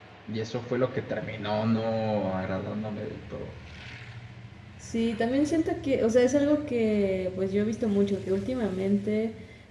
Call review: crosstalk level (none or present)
none